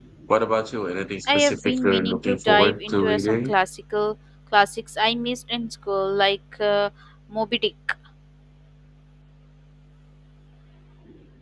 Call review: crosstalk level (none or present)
present